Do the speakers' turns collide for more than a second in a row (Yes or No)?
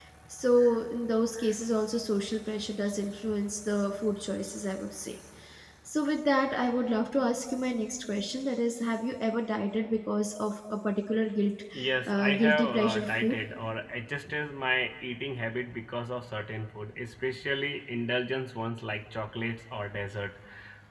Yes